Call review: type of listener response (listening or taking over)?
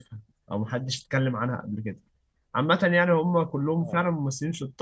listening